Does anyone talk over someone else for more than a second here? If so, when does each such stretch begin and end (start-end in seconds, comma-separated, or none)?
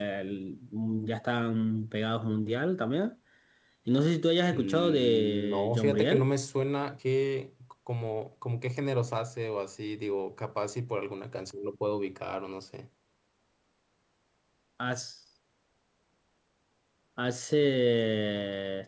4.5-6.3